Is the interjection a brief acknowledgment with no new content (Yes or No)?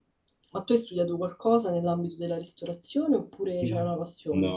No